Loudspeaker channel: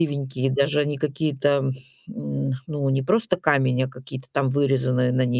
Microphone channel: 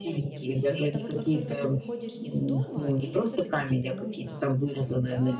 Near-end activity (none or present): present